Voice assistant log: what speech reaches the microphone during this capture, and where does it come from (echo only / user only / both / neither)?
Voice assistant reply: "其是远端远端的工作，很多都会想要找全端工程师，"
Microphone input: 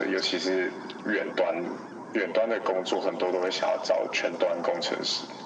echo only